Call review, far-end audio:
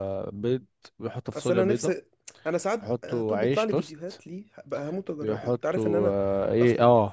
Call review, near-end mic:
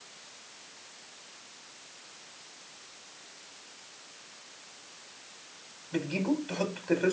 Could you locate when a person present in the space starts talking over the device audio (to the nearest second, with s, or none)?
6 s